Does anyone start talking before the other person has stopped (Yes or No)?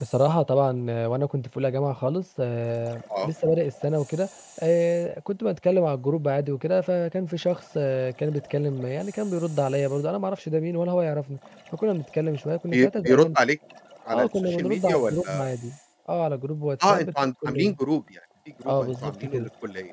Yes